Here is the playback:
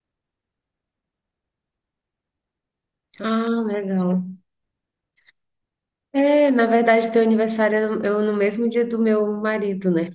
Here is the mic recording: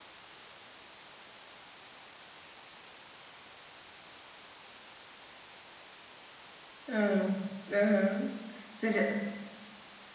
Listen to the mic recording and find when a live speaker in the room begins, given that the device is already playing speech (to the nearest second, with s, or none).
7 s